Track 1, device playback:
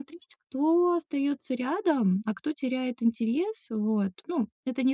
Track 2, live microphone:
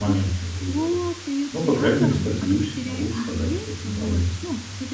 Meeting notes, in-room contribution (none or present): present